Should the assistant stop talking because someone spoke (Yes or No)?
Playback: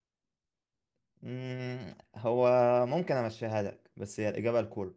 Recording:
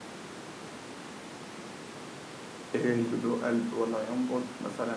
Yes